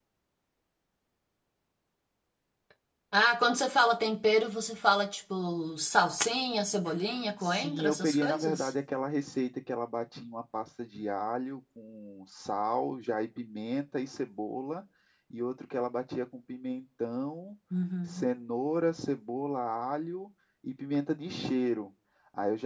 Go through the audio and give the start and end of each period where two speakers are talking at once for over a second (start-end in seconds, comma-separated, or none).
7.4-8.7